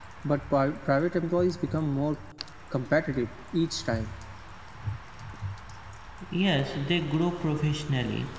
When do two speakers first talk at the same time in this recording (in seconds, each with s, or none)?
none